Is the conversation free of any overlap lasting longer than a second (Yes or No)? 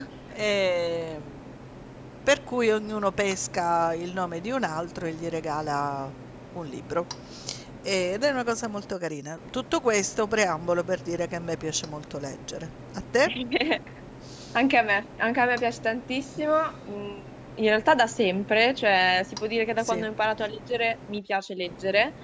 Yes